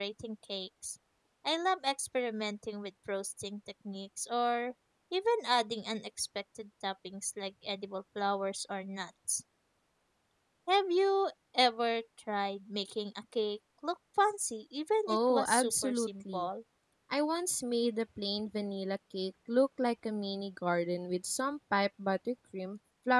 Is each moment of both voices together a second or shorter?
No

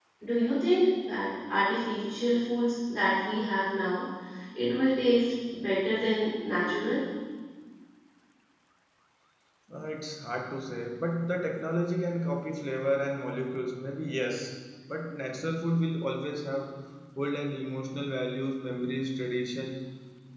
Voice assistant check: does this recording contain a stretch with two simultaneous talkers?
No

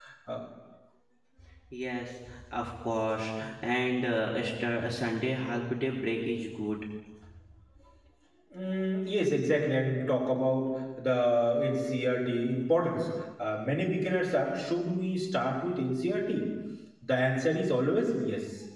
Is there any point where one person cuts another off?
No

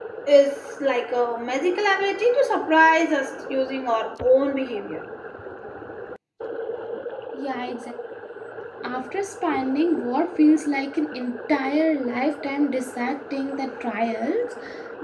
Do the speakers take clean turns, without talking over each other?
Yes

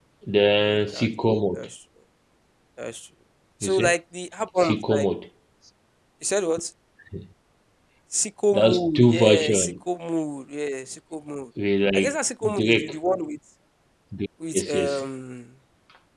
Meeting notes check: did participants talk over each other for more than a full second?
Yes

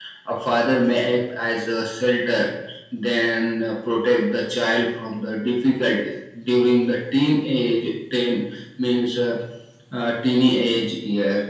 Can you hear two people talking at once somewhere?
No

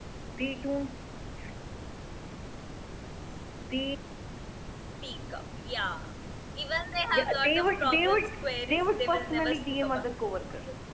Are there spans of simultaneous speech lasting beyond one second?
Yes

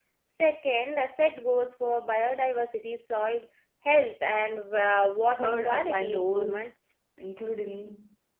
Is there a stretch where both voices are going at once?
Yes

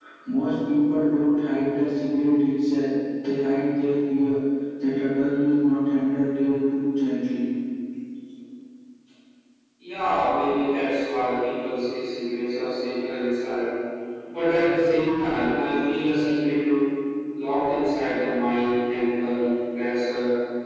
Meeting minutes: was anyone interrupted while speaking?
No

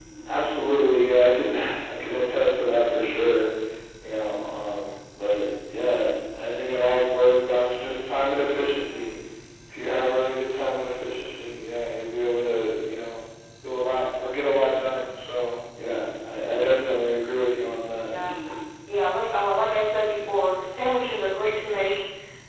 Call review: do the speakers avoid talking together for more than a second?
Yes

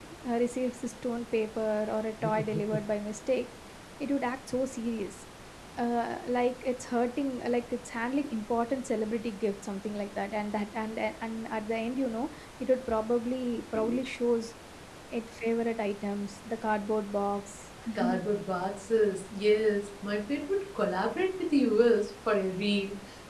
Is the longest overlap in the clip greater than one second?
No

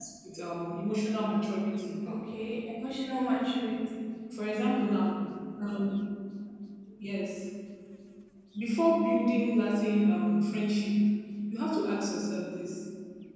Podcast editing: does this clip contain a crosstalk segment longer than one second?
No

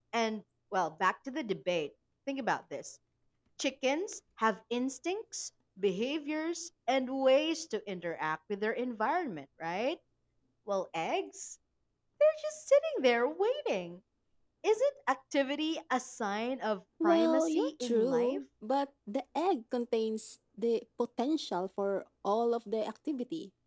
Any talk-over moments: Yes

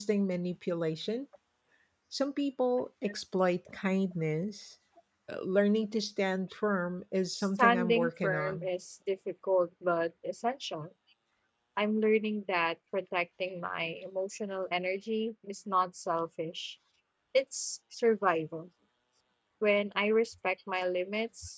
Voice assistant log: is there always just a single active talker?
No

